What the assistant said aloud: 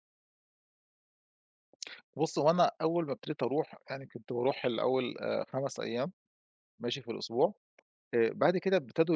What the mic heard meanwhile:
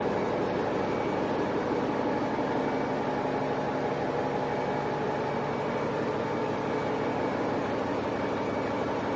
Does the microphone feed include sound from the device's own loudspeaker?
No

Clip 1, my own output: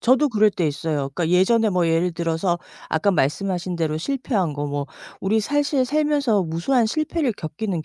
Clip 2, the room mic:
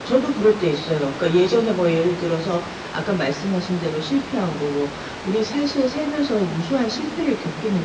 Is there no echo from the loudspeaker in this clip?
No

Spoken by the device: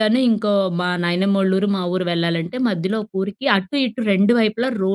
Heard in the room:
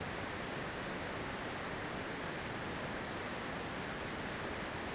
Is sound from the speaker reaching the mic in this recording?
No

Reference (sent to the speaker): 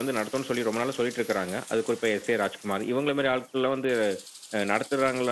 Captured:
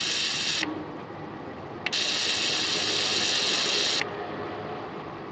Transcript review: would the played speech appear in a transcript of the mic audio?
No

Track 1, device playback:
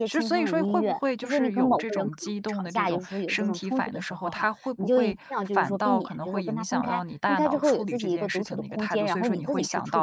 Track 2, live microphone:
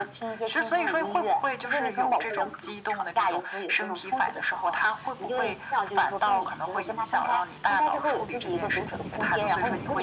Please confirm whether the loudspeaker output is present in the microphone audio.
Yes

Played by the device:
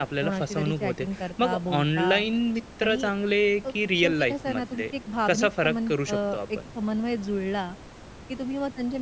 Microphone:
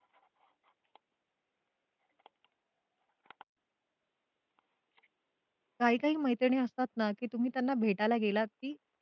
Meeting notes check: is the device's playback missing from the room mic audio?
Yes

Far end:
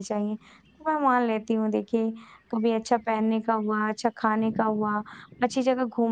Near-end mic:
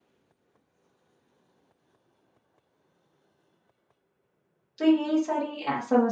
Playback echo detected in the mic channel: No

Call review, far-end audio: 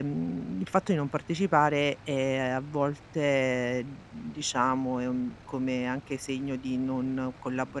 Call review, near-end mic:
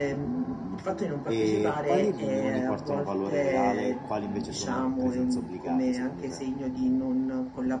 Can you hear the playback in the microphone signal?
Yes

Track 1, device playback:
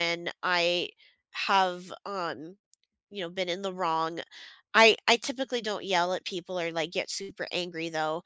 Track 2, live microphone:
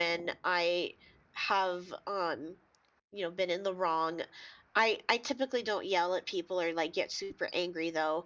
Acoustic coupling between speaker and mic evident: Yes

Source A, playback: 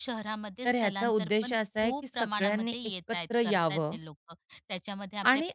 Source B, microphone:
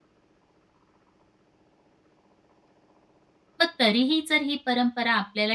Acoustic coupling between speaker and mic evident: No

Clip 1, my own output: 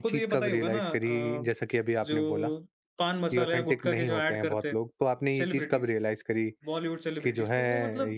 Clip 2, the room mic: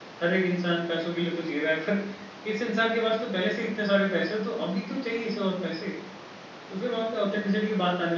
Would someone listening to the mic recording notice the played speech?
No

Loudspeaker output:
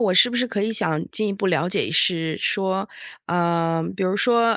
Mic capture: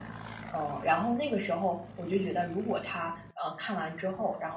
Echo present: No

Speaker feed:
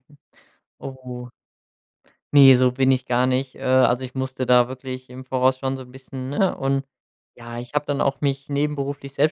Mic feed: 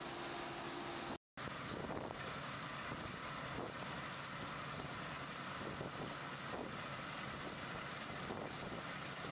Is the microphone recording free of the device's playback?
Yes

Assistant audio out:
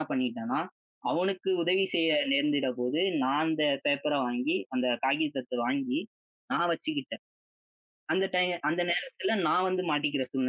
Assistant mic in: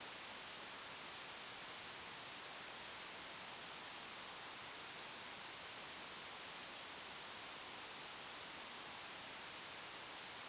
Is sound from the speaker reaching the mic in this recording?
No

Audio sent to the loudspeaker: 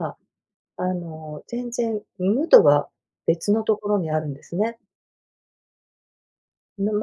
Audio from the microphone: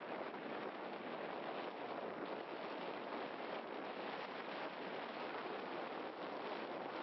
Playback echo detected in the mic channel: No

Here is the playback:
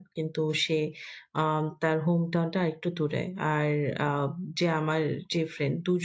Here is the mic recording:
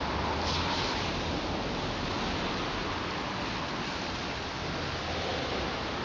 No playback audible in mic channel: Yes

